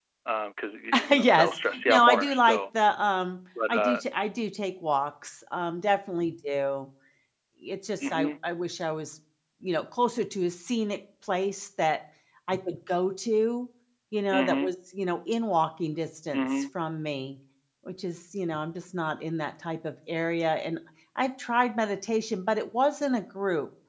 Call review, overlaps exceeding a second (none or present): present